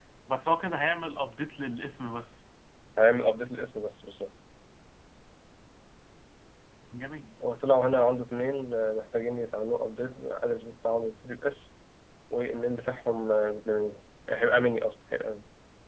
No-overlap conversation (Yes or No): Yes